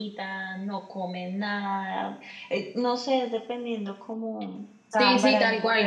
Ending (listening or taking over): taking over